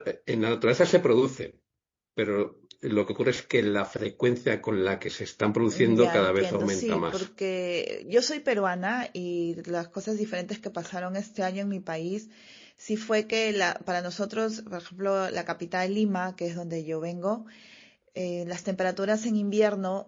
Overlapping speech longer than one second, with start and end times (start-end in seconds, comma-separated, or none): 5.7-7.3